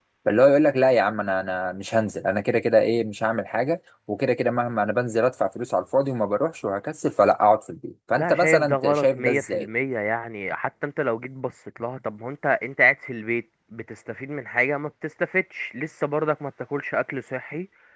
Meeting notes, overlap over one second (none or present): present